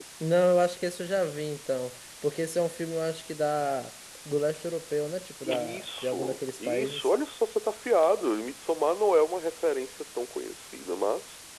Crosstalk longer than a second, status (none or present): present